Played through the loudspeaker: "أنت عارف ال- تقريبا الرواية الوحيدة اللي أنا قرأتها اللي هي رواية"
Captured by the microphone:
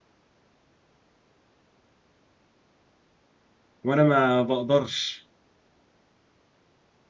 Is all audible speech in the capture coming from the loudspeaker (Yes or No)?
No